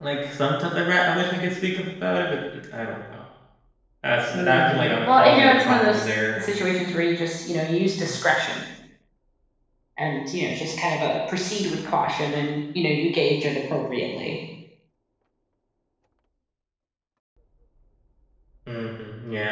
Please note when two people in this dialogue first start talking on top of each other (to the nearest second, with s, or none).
4 s